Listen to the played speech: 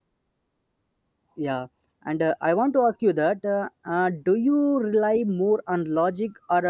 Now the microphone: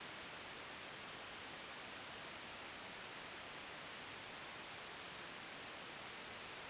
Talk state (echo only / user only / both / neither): neither